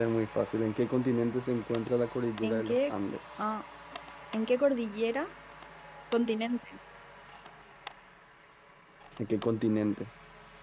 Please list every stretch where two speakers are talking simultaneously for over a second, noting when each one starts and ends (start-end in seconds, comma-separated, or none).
none